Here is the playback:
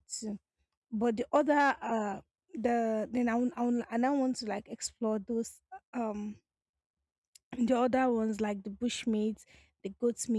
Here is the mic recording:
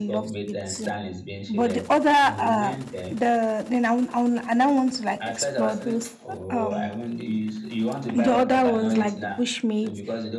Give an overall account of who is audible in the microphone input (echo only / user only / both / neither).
both